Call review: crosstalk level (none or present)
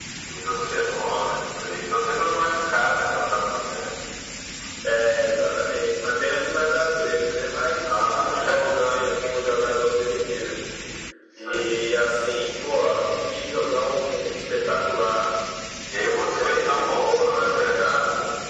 present